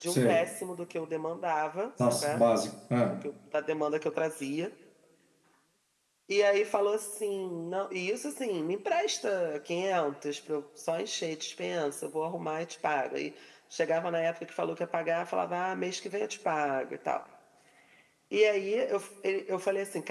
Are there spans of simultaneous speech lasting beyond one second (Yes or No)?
No